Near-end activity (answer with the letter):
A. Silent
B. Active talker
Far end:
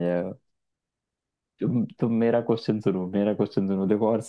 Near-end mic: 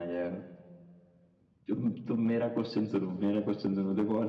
A